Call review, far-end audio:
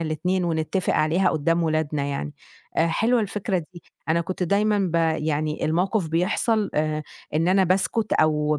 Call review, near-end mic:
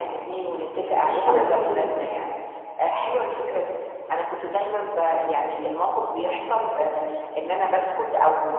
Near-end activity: present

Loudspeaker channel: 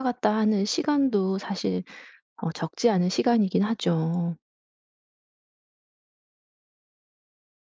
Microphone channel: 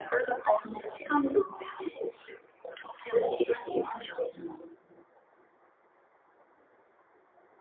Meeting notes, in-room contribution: none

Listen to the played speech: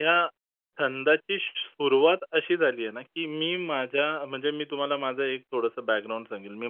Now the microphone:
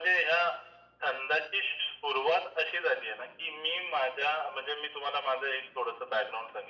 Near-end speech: none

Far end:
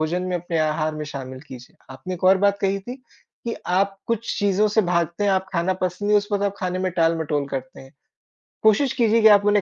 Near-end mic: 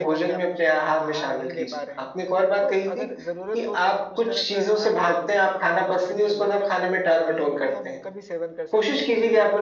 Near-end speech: present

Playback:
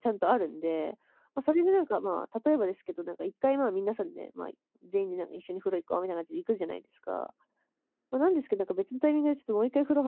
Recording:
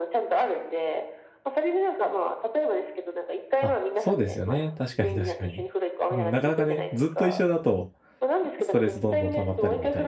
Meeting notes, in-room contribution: present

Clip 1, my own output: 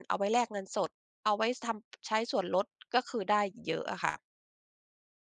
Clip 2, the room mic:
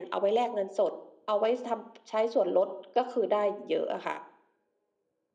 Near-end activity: none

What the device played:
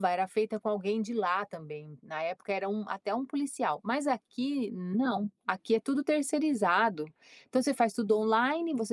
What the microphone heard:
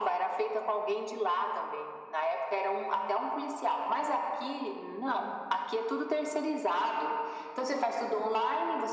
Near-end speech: none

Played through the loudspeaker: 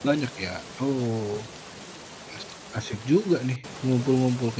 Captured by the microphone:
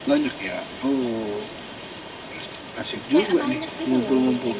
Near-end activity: present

